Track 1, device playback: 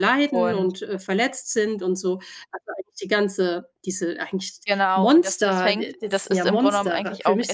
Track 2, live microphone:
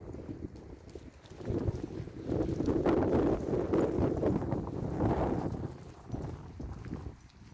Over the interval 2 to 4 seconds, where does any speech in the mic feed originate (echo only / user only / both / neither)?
neither